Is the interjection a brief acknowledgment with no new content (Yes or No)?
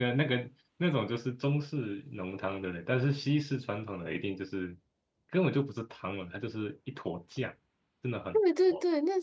No